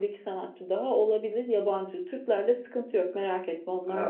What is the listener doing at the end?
taking over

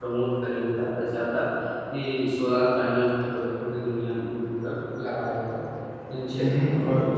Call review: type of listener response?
taking over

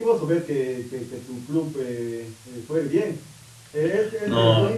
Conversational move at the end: listening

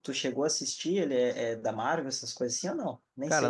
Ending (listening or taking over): taking over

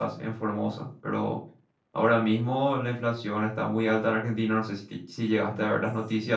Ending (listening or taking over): taking over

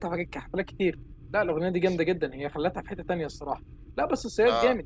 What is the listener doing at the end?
listening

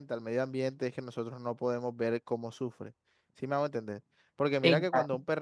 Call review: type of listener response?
listening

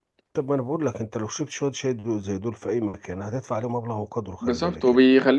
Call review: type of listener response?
taking over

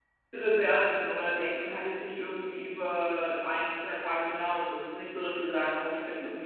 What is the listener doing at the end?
listening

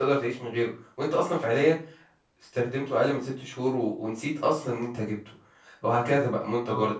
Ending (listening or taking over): listening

